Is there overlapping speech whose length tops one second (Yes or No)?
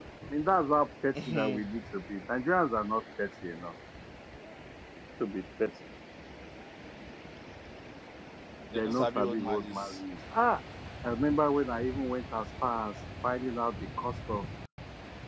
Yes